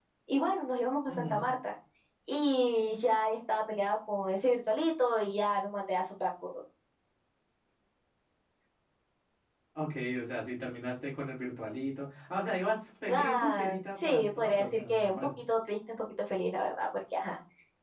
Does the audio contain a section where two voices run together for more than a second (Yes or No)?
Yes